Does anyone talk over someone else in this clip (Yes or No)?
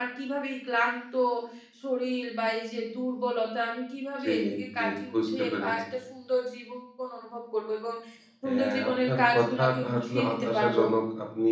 Yes